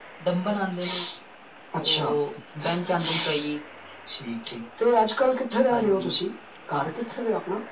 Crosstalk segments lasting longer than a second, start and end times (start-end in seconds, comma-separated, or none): none